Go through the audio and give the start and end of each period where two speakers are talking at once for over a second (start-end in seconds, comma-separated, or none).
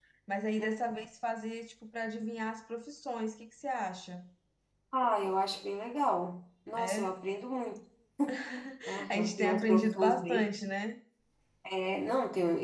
9.1-10.4